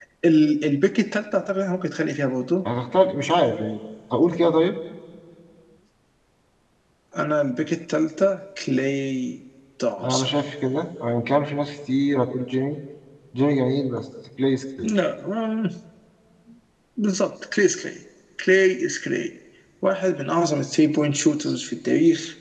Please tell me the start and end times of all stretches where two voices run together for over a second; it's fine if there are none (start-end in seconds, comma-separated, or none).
none